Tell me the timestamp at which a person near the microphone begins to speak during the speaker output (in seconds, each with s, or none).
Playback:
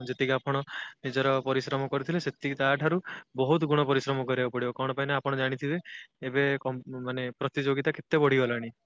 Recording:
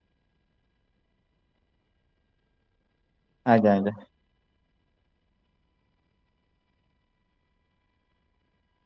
3.5 s